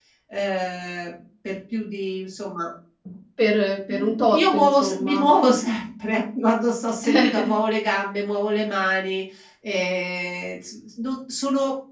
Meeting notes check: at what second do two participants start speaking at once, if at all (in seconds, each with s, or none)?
3.9 s